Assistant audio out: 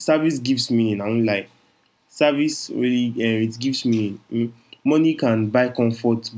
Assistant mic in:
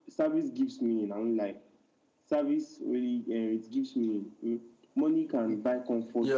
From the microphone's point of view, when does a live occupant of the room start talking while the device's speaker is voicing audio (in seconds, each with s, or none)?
5.5 s